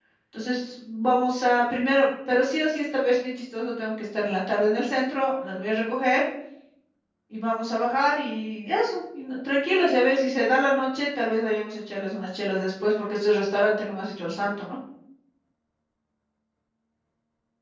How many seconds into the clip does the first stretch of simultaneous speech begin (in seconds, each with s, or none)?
none